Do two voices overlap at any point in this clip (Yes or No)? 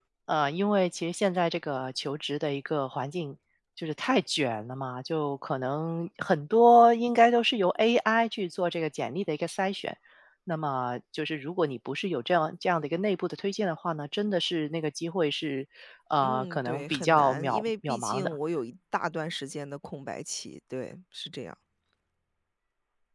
Yes